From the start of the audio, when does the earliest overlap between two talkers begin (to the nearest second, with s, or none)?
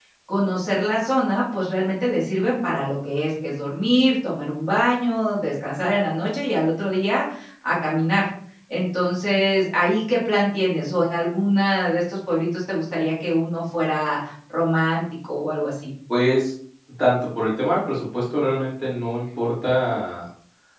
none